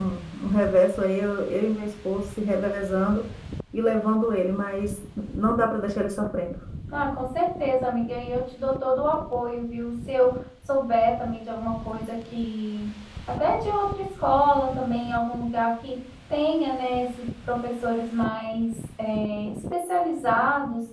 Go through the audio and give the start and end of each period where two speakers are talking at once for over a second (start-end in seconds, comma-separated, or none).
none